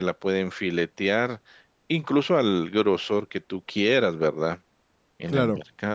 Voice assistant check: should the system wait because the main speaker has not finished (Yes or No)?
Yes